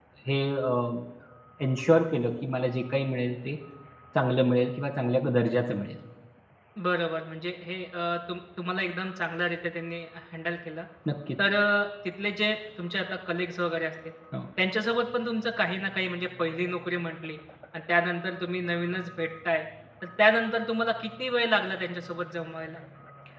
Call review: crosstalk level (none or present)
none